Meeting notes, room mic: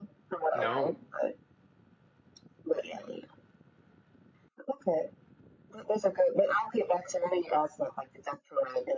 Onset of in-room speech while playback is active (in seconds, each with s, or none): 0.5 s